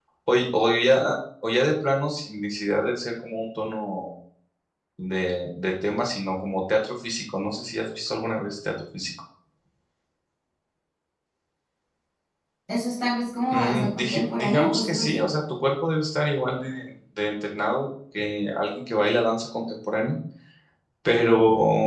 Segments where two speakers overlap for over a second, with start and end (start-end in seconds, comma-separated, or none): 13.5-15.3